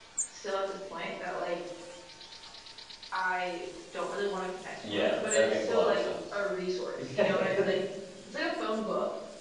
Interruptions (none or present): present